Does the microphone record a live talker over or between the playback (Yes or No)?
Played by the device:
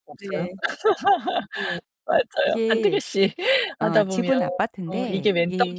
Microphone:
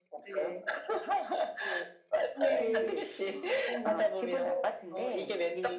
Yes